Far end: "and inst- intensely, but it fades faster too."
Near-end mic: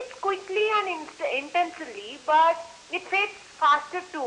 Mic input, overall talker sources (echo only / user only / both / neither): echo only